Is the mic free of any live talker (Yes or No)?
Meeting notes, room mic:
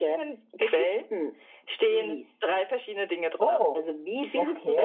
No